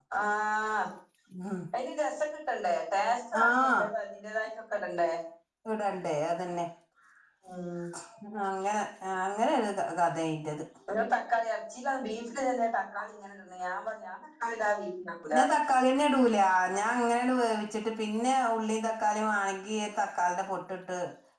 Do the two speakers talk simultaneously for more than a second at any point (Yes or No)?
No